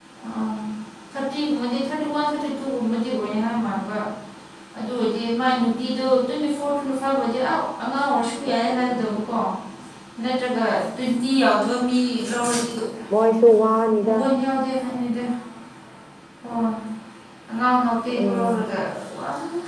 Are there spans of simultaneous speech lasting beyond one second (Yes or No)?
No